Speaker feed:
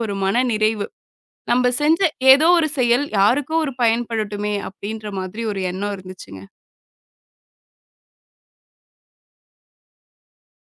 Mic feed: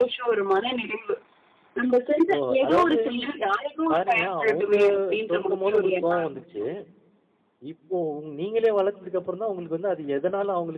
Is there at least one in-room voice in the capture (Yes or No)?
Yes